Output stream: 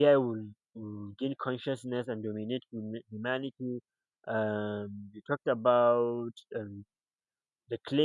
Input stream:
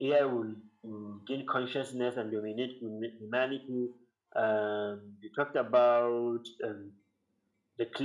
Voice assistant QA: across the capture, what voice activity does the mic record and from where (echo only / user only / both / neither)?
echo only